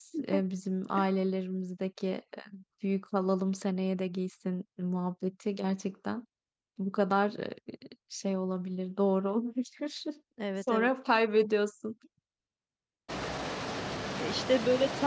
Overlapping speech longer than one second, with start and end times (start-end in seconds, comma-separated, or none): none